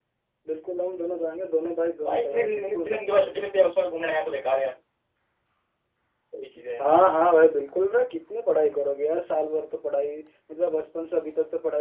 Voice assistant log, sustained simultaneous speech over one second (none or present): present